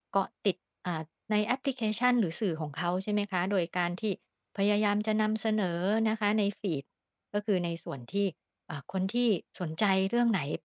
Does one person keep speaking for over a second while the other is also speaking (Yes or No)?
No